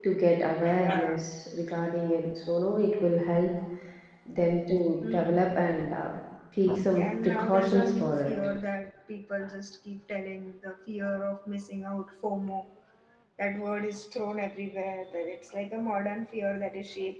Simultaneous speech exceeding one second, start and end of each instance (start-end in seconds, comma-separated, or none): 6.9-8.4